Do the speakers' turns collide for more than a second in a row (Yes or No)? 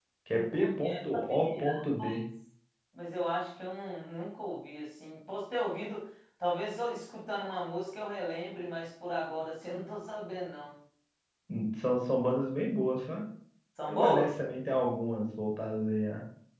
Yes